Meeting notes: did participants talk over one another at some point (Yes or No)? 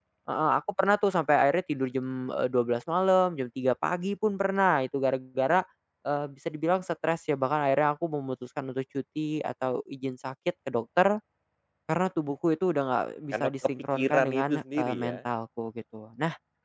Yes